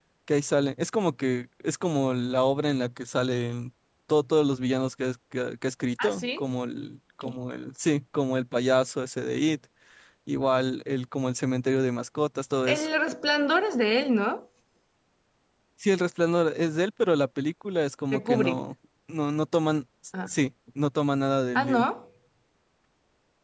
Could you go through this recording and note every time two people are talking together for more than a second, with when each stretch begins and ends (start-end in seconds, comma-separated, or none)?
none